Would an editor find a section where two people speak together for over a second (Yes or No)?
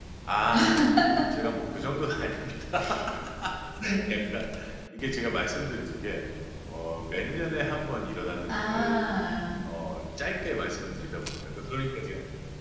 No